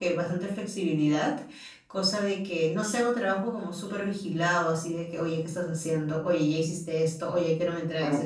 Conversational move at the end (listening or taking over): taking over